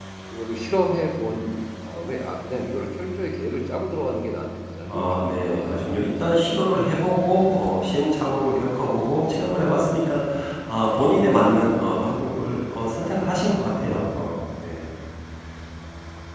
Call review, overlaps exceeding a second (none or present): present